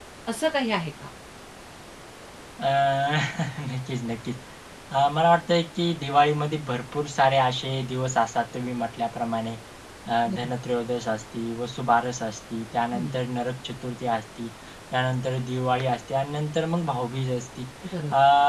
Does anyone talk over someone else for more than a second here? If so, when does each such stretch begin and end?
none

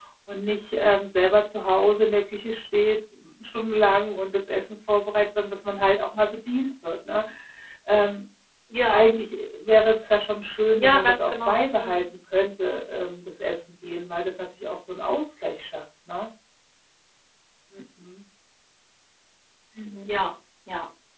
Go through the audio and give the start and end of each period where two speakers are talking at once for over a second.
10.8-12.0

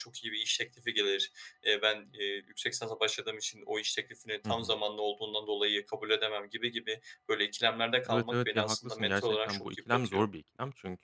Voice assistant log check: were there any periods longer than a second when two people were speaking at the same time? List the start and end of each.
8.1-10.2

